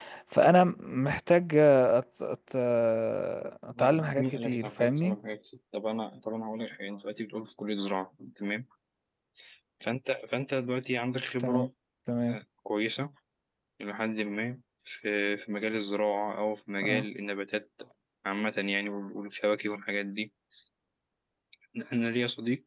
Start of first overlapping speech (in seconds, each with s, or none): 3.8 s